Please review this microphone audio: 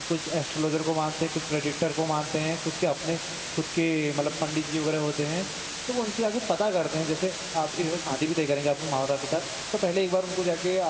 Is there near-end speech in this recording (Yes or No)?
Yes